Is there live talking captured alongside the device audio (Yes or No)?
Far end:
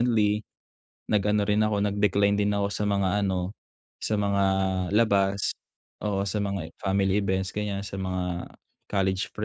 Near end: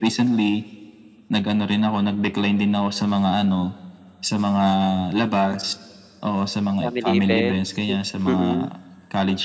Yes